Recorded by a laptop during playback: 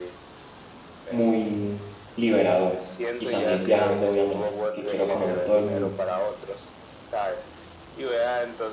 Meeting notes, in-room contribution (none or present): present